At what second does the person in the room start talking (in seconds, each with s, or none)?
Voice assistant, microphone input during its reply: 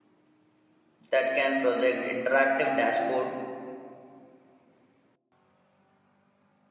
1.1 s